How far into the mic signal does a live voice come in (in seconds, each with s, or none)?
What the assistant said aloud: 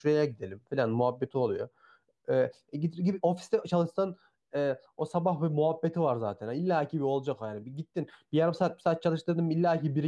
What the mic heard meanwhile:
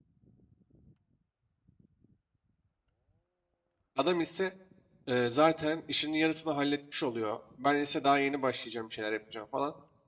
4.0 s